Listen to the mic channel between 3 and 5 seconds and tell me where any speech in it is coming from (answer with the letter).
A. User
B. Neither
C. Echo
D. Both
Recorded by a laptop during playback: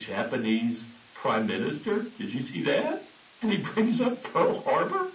C